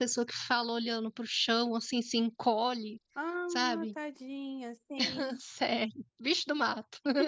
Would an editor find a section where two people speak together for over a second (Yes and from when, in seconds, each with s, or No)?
No